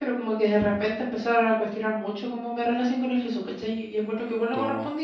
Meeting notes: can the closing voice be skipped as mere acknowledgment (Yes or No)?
Yes